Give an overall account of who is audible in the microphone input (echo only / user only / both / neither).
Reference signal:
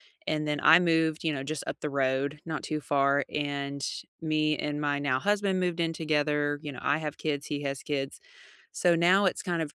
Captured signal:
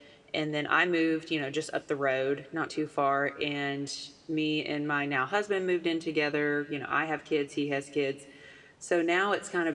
echo only